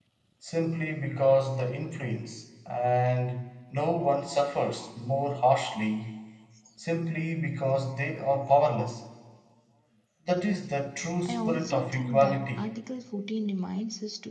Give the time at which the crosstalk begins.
11.2 s

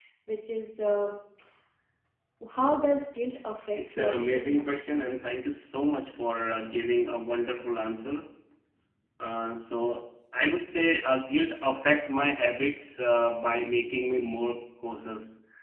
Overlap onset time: 3.8 s

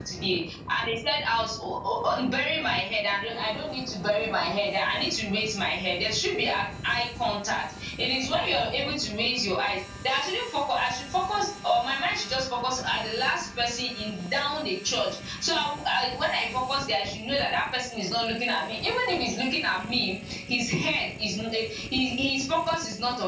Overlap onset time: none

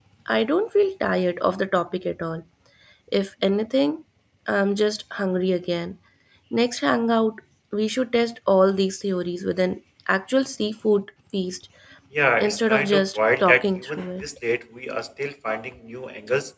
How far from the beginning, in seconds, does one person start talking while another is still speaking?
12.4 s

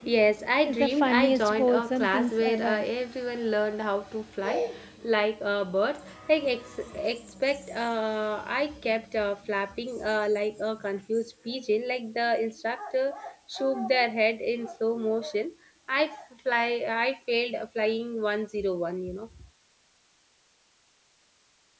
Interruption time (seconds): 0.7 s

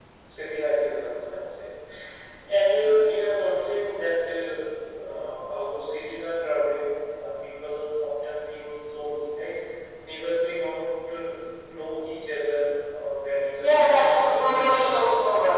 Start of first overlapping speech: 13.5 s

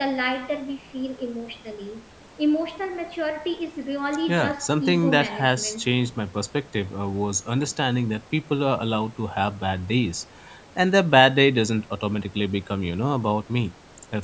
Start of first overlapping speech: 4.3 s

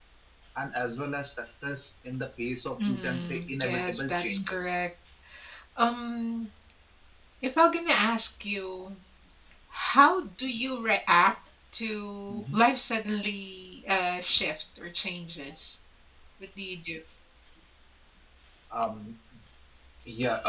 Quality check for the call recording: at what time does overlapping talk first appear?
2.8 s

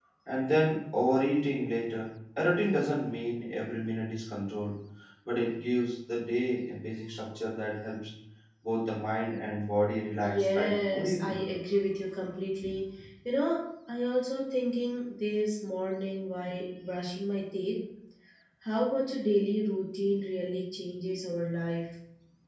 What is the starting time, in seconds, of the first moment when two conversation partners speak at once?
10.2 s

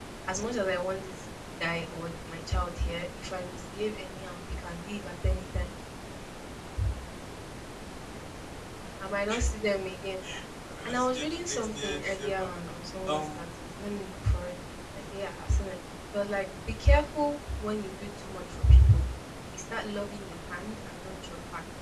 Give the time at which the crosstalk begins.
10.8 s

